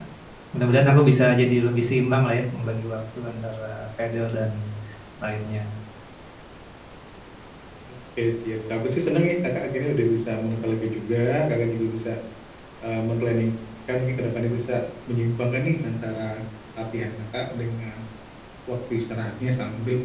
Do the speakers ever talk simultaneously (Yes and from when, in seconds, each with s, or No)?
No